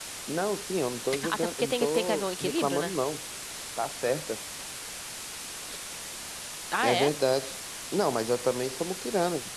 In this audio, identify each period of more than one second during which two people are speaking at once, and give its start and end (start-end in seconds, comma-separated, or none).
1.3-2.9